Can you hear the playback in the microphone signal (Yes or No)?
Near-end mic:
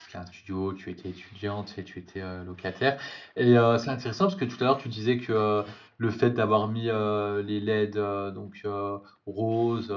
No